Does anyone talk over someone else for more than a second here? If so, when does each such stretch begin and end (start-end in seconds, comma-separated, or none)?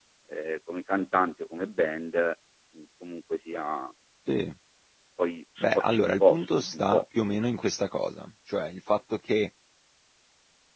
5.6-7.0